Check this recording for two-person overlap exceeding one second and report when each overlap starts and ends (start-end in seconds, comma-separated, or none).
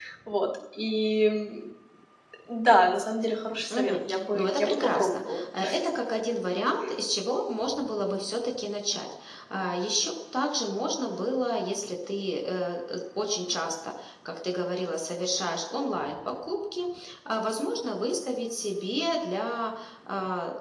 3.7-5.4